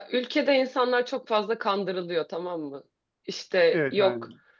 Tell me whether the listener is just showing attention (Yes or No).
Yes